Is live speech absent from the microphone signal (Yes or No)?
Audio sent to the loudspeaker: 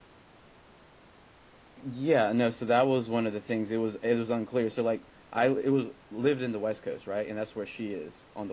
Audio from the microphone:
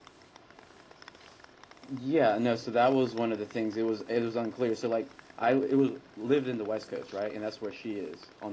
Yes